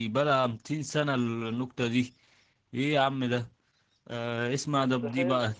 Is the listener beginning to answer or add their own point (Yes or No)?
No